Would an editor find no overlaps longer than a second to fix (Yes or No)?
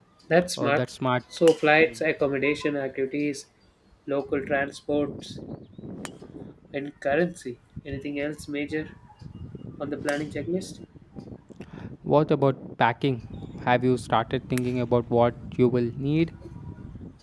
Yes